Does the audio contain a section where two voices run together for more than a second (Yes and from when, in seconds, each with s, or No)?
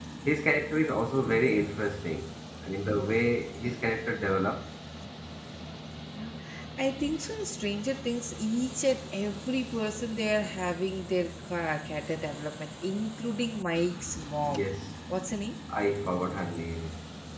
No